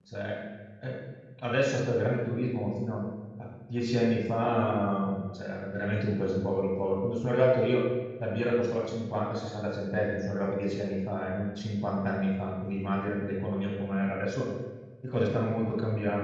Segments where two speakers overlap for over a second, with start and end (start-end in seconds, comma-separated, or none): none